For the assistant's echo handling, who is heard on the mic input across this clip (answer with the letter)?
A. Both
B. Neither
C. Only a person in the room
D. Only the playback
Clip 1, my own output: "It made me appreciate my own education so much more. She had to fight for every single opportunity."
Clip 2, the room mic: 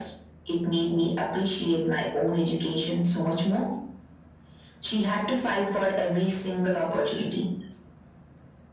D